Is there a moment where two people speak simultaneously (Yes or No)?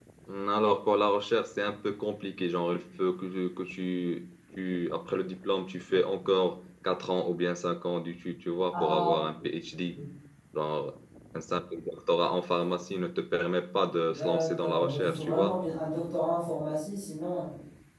Yes